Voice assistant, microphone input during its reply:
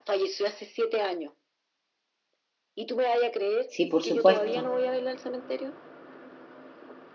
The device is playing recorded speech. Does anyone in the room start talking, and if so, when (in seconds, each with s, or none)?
3.6 s